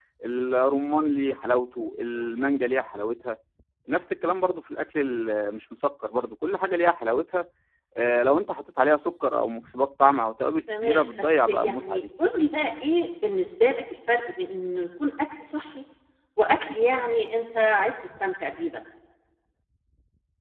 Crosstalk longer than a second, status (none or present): present